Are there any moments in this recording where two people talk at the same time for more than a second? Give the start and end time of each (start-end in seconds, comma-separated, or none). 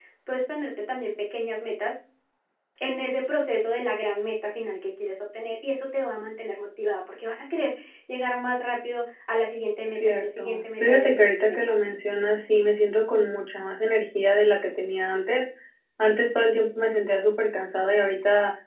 9.9-11.6